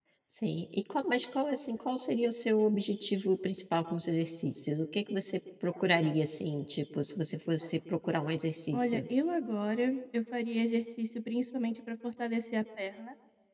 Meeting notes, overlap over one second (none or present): none